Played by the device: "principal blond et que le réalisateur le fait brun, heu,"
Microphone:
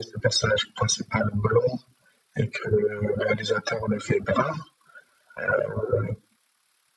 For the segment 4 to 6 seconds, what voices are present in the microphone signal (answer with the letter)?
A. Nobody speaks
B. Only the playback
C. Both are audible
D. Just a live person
B